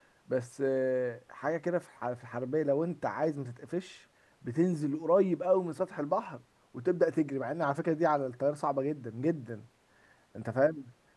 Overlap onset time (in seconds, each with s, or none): none